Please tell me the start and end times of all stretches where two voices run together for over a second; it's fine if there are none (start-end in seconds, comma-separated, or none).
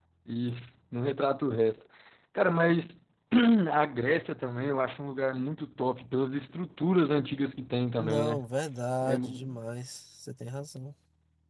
none